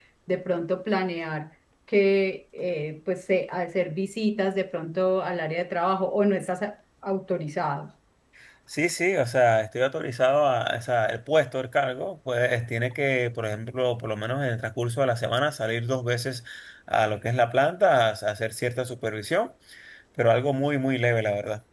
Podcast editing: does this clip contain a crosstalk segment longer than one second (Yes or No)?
No